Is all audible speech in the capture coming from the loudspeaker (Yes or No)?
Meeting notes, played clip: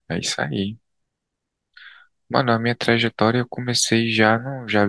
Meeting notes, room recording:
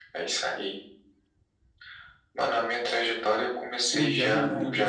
No